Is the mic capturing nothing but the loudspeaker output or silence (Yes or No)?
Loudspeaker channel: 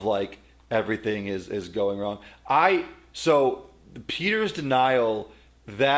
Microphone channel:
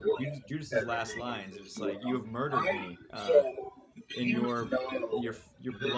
No